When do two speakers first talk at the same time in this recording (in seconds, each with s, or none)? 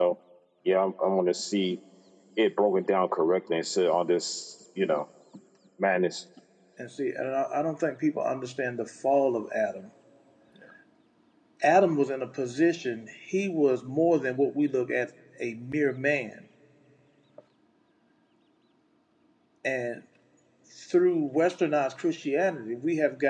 none